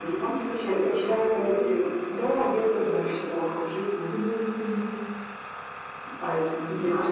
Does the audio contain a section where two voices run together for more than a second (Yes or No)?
Yes